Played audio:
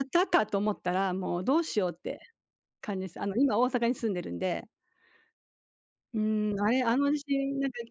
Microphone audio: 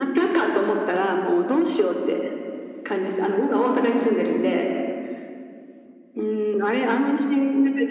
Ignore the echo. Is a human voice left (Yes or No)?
No